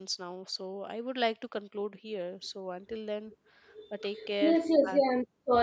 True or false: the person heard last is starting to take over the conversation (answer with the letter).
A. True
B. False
A